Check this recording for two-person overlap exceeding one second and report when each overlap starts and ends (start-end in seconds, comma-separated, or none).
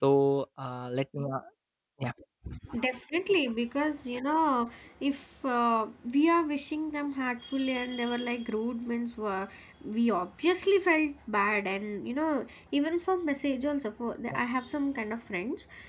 none